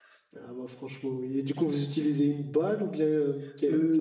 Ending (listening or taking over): taking over